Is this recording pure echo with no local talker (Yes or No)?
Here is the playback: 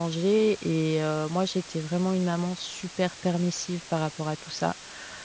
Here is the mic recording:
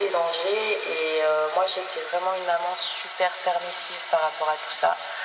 Yes